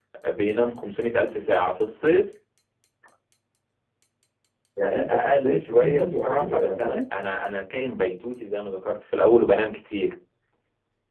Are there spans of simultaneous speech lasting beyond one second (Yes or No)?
Yes